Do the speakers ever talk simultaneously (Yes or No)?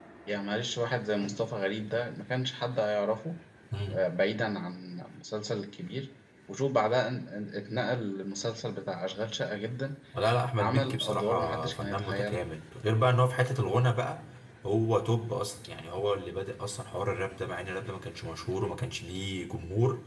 Yes